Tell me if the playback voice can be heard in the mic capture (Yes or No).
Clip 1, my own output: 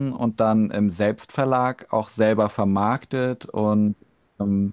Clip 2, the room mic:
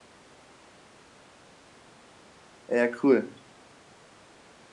No